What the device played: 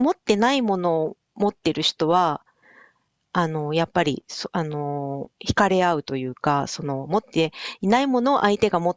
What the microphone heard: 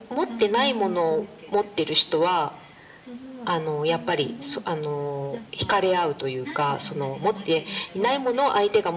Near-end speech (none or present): present